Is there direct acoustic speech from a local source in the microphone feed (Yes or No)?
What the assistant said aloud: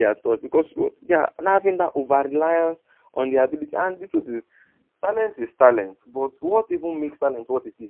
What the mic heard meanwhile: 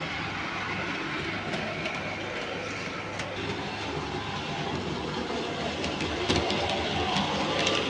No